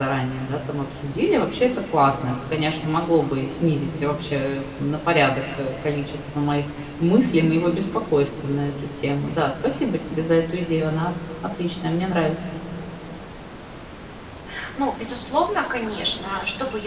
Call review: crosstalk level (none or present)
none